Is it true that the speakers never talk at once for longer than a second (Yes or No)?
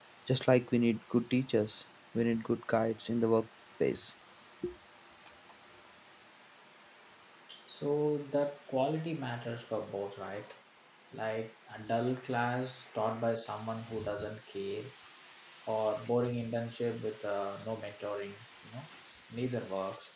Yes